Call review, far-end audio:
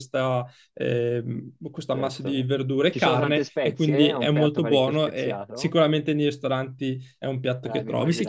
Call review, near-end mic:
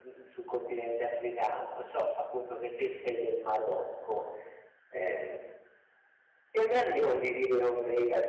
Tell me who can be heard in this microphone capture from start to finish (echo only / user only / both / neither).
user only